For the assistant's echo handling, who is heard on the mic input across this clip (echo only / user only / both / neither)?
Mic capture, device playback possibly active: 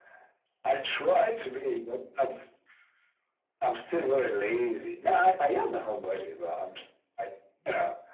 echo only